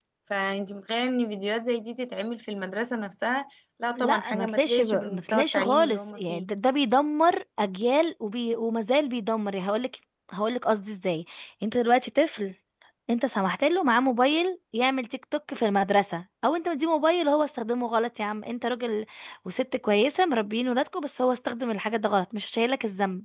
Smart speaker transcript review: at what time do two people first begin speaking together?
4.0 s

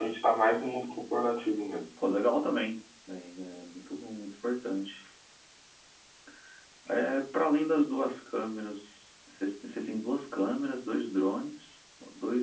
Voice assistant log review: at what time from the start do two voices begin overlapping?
none

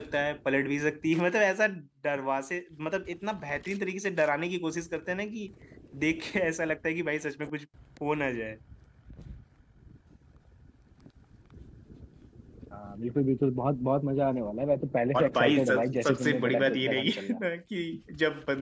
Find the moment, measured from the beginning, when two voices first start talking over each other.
15.1 s

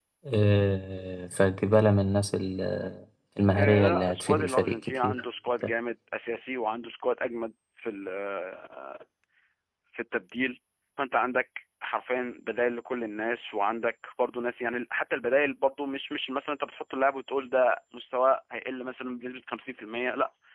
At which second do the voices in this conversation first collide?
3.5 s

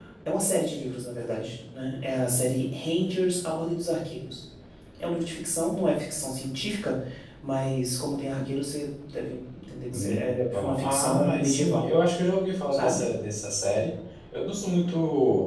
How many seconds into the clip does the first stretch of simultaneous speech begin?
9.9 s

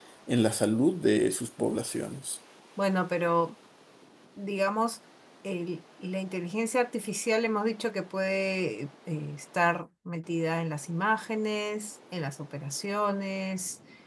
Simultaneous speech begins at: none

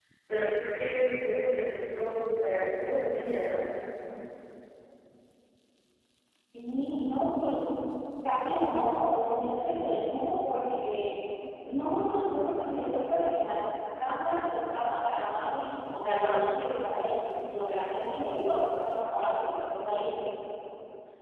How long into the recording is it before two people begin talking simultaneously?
none

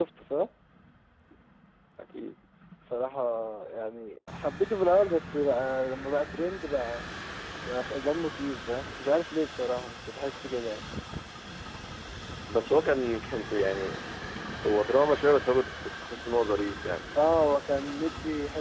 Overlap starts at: none

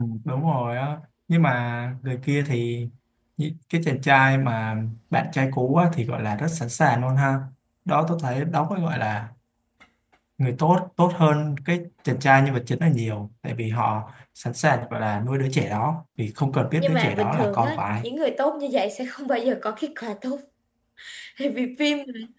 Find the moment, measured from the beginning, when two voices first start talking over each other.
16.8 s

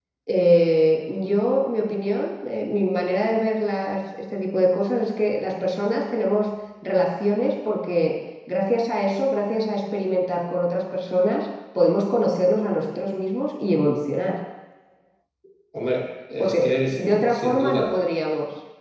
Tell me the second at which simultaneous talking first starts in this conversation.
16.4 s

